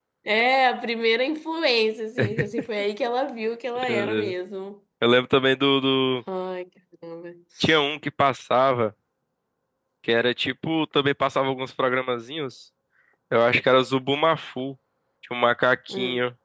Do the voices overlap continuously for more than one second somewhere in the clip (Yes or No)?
No